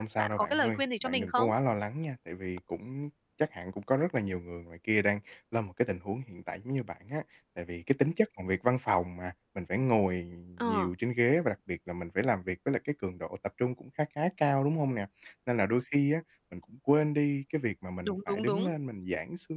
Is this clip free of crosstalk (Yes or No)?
No